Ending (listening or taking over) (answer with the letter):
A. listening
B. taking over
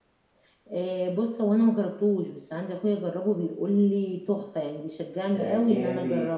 B